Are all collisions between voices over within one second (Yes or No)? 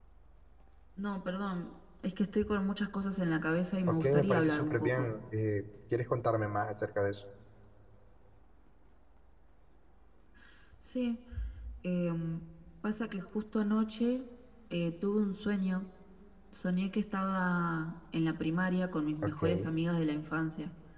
No